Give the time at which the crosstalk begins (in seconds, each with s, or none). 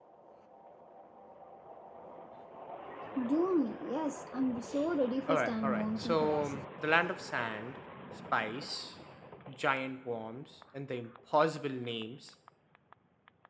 5.3 s